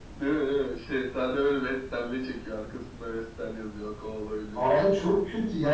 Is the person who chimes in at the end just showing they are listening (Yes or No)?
No